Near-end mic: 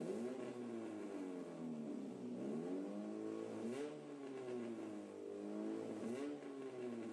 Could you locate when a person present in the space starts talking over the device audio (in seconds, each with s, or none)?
none